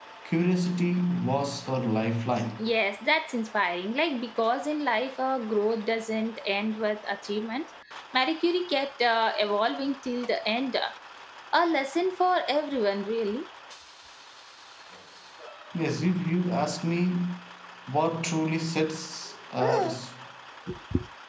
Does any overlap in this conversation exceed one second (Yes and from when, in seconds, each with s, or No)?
No